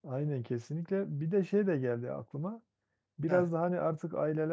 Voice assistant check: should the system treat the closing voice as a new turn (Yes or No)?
No